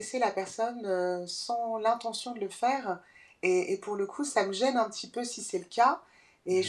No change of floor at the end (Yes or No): Yes